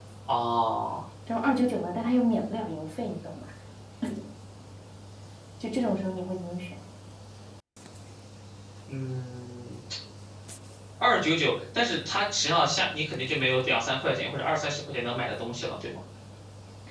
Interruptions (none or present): none